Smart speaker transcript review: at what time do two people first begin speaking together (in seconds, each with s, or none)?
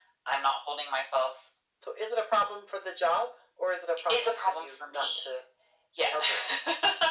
4.1 s